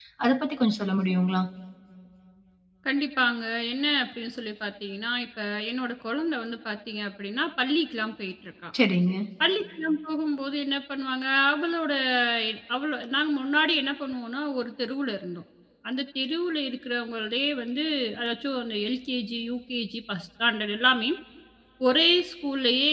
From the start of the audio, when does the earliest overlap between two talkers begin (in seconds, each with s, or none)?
none